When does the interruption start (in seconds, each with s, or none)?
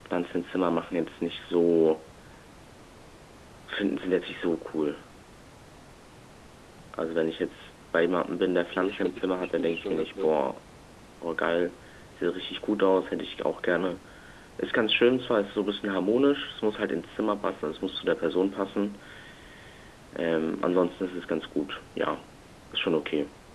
8.8 s